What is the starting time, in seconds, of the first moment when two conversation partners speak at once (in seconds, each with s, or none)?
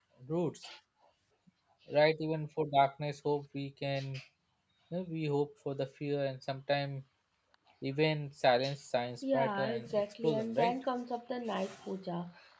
9.3 s